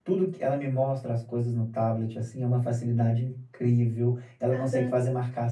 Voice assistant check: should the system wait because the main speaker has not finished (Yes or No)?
Yes